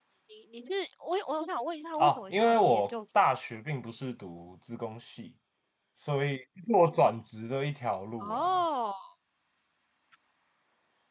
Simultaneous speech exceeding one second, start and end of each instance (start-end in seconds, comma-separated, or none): 2.0-3.3